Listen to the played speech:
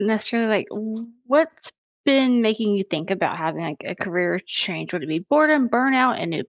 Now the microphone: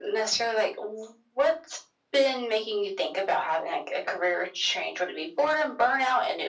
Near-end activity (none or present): none